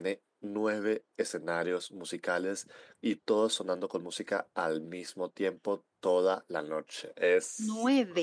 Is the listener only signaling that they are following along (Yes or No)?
No